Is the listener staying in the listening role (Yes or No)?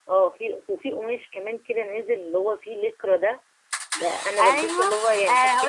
No